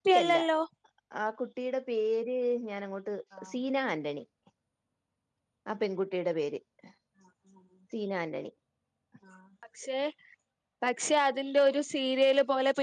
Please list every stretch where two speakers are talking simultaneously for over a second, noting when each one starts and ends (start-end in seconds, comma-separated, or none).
none